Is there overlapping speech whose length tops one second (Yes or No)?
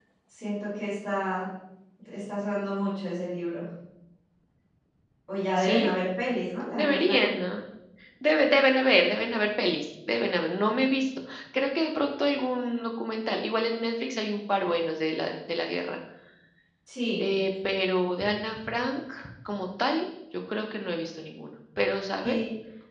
No